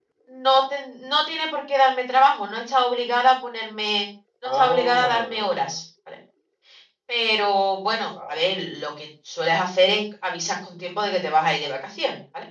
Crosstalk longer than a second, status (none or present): present